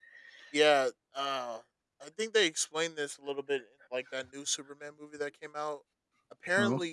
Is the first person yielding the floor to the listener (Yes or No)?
No